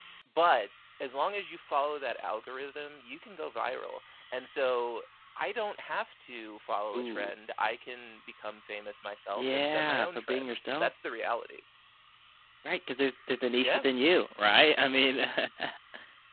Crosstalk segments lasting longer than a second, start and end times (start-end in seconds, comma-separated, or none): 9.3-10.9